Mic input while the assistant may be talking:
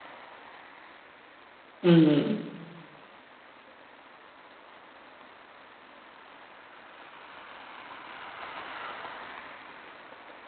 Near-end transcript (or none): हं.